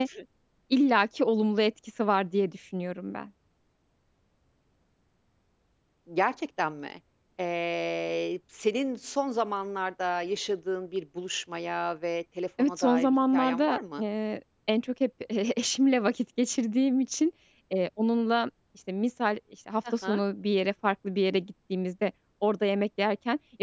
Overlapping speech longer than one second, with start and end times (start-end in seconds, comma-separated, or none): 12.6-14.0